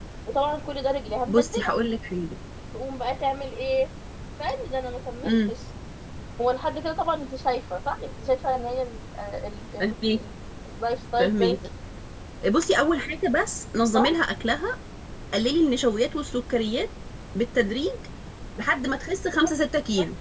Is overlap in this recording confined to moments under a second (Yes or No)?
Yes